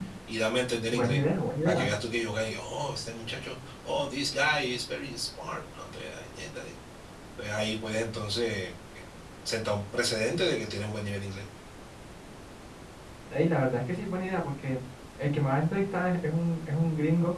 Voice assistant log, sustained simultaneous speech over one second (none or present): none